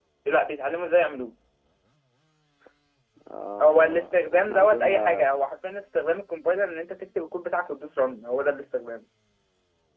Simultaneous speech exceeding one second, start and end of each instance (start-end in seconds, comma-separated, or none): 3.6-5.3